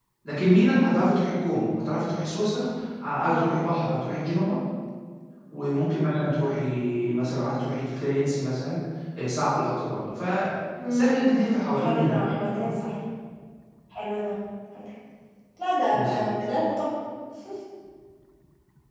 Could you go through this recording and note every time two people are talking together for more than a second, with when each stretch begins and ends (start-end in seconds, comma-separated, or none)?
10.9-12.7